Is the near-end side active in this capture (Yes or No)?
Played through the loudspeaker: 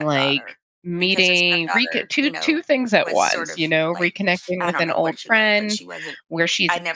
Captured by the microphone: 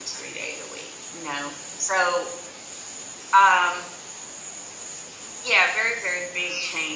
Yes